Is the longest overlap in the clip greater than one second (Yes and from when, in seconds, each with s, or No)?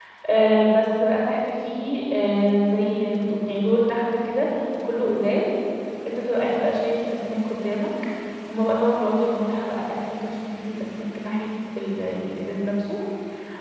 No